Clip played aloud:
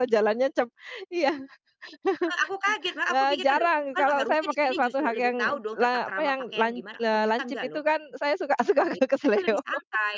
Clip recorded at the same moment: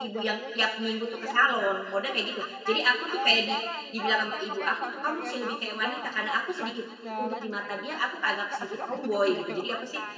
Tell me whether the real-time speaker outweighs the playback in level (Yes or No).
Yes